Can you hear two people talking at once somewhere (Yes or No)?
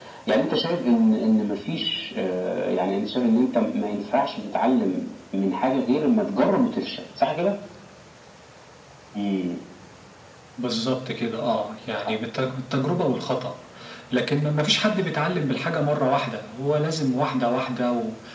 No